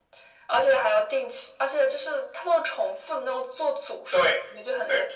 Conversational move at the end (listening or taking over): taking over